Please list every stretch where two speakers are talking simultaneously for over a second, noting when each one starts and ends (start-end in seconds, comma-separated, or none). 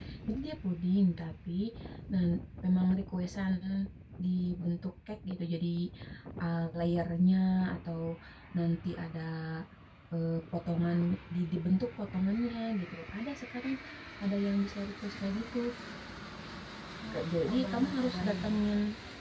17.1-18.5